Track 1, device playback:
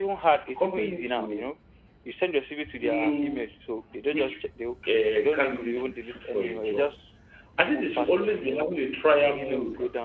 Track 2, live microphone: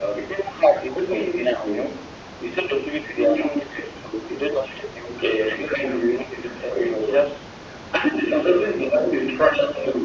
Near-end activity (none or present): none